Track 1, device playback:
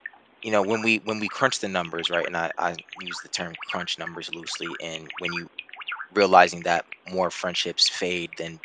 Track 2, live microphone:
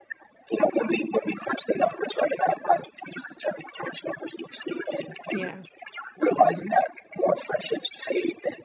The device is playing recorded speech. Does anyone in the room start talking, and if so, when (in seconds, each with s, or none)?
5.3 s